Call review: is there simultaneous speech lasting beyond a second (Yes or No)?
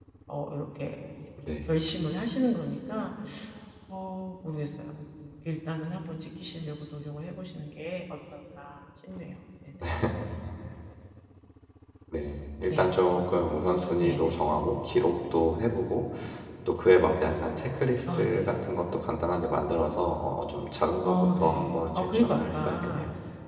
Yes